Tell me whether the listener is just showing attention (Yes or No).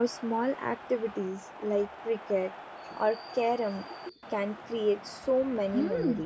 No